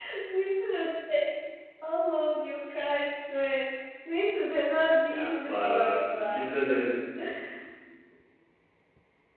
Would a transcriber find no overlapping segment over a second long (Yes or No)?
No